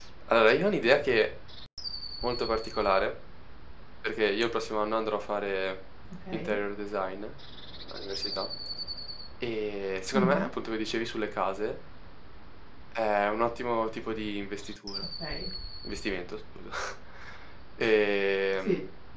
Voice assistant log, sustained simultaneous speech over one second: none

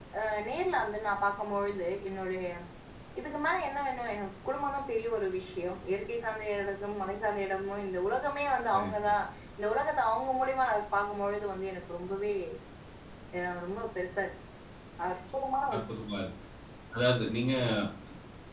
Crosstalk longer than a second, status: none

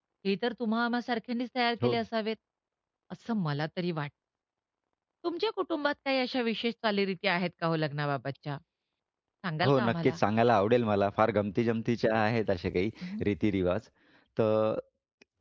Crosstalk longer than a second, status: none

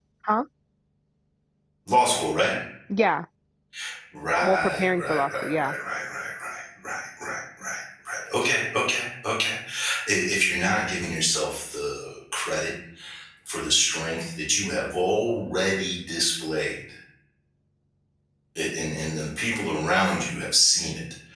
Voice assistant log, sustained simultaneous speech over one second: present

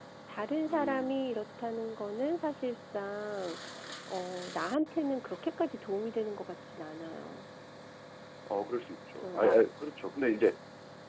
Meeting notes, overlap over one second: none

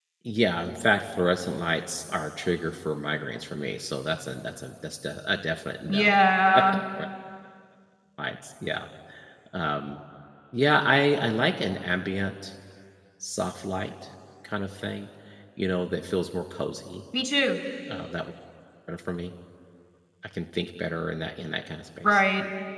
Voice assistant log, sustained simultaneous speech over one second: none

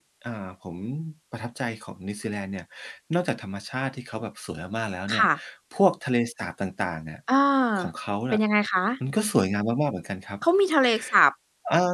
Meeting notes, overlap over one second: none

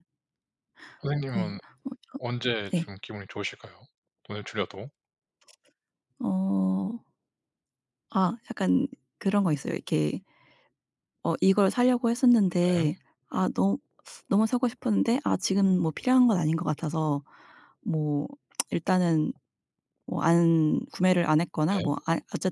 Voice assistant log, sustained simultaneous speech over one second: none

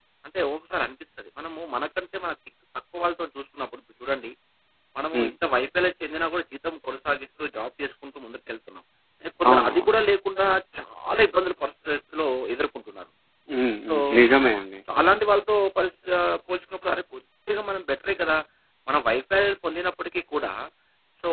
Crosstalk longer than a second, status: none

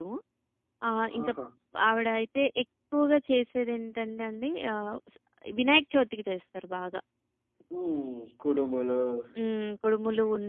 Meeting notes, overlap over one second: none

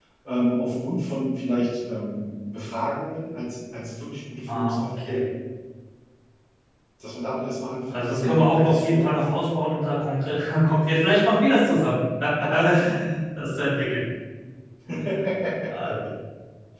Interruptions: present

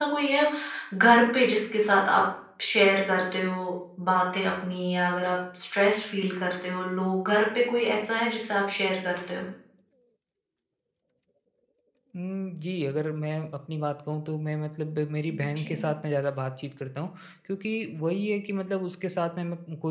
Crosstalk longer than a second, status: none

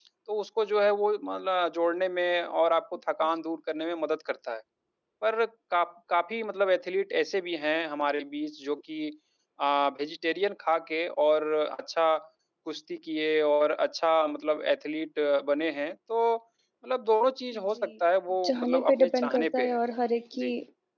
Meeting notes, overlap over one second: present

